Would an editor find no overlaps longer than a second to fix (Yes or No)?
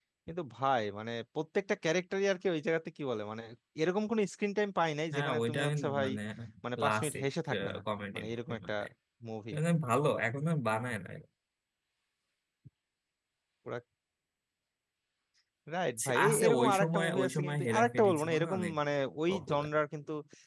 No